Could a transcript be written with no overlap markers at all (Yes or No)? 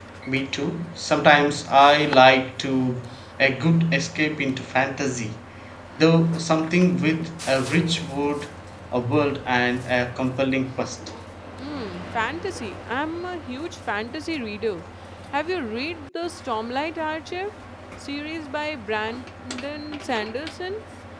Yes